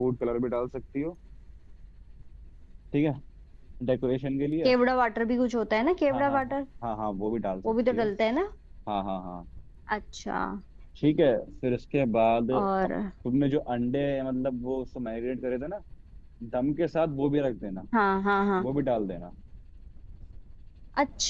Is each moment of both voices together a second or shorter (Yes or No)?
Yes